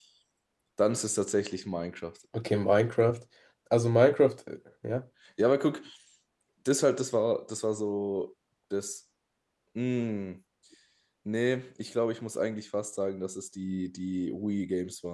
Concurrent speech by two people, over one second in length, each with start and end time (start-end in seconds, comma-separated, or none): none